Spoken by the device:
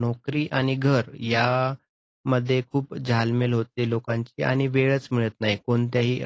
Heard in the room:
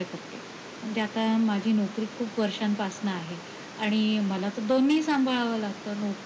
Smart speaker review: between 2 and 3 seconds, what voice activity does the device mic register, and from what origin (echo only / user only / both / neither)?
user only